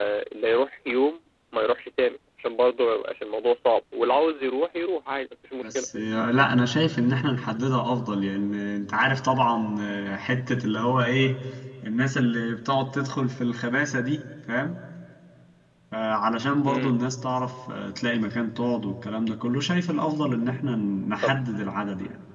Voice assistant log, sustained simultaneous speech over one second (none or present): none